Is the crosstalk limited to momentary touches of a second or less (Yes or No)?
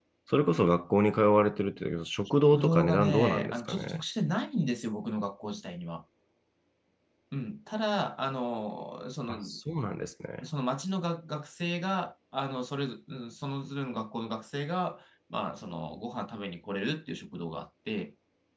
No